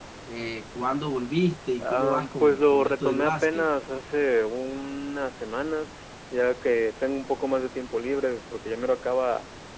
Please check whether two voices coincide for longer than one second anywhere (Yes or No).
Yes